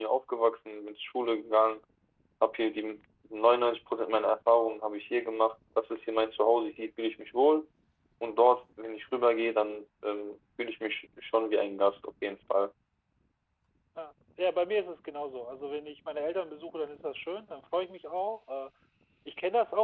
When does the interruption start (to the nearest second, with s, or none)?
none